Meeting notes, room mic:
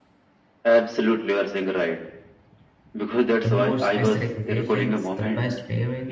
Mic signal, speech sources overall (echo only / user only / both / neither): both